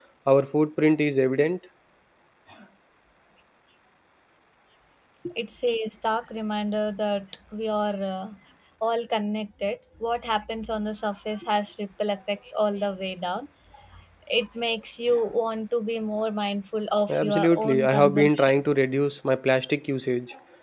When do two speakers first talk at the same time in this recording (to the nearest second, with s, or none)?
17 s